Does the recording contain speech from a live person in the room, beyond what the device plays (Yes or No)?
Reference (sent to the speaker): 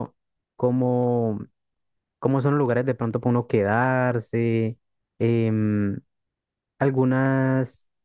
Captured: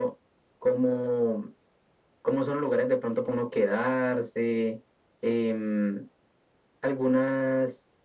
No